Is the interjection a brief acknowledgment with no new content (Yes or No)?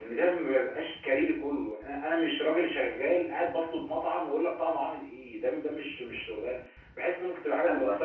No